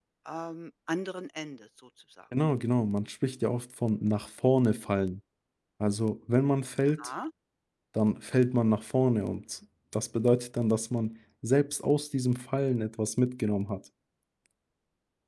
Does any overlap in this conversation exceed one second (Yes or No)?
No